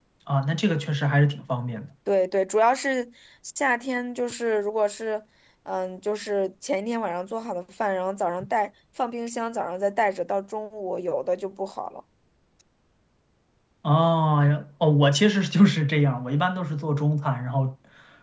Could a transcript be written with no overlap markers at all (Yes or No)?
Yes